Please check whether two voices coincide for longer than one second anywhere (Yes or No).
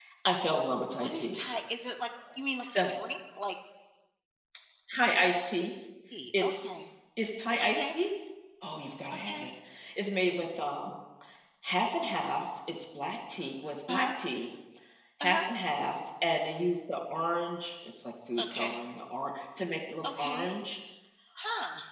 No